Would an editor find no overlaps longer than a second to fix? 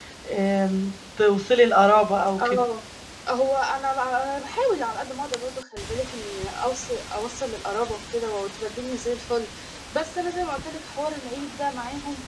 Yes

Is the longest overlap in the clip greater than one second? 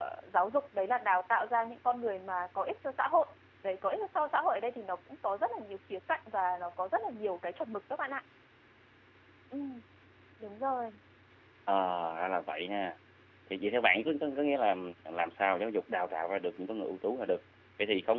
No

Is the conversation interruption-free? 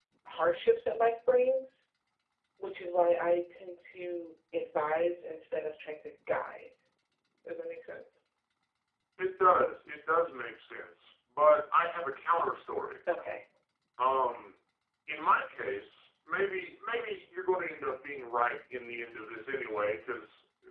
Yes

